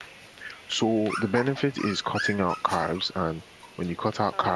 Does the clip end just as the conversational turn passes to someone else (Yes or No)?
No